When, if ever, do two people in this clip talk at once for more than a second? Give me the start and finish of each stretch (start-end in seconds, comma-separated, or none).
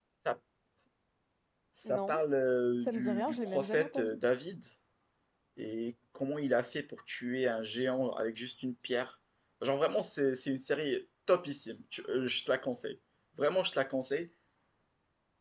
2.9-4.2